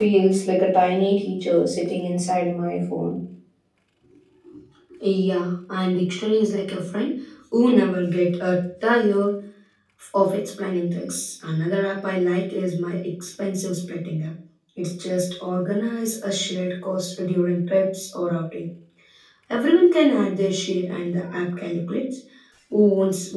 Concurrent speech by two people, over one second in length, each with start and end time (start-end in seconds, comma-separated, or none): none